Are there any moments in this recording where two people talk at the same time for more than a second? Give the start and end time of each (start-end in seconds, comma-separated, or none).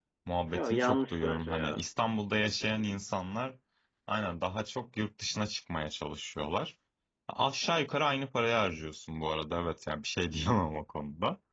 0.5-1.9